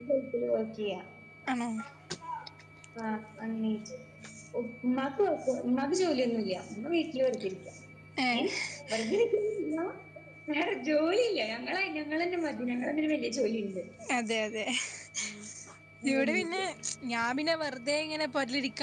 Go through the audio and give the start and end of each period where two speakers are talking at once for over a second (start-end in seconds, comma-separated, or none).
none